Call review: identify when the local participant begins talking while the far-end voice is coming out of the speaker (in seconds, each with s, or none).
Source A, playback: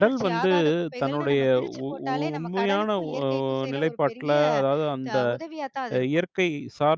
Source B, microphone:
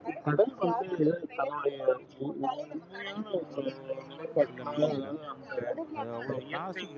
4.4 s